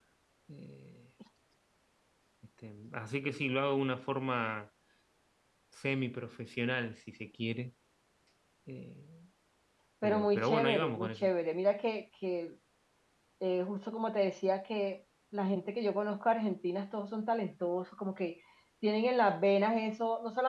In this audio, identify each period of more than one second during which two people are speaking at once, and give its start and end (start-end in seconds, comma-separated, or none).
10.0-11.3